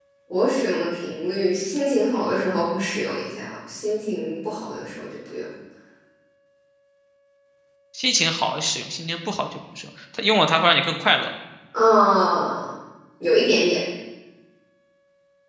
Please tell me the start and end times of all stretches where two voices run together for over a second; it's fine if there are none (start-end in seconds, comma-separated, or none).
none